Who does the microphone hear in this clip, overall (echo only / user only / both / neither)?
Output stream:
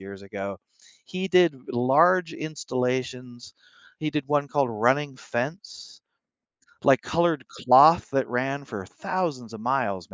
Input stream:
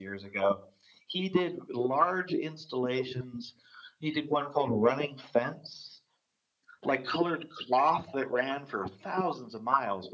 echo only